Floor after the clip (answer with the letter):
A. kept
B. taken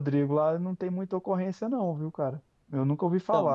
A